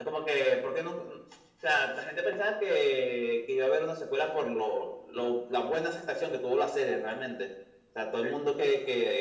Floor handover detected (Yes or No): No